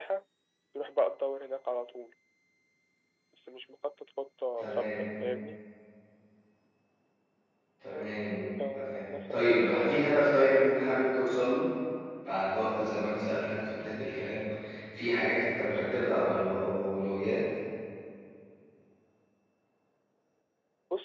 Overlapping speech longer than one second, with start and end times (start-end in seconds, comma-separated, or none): 8.8-10.1